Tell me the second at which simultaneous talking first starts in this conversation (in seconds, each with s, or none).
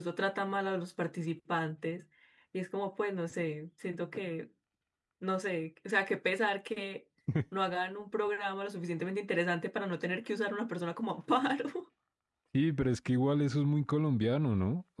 none